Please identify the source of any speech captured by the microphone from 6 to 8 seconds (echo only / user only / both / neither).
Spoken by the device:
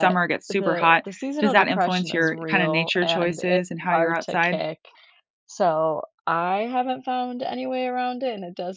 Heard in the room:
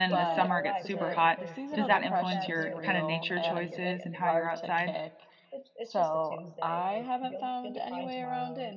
both